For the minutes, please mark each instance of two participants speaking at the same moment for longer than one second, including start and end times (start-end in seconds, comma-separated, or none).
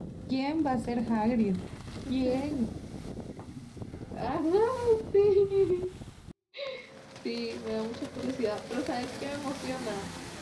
none